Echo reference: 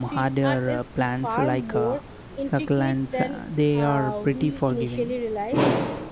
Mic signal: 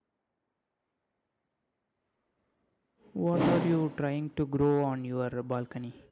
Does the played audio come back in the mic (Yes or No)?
No